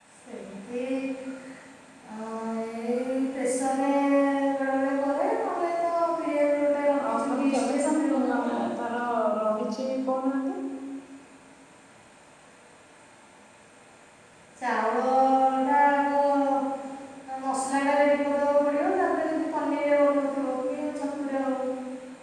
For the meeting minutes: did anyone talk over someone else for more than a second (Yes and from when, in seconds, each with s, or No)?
Yes, from 7.0 s